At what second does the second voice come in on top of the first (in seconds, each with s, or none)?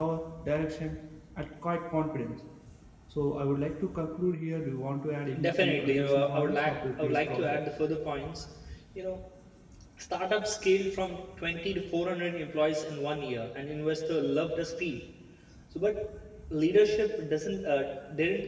5.3 s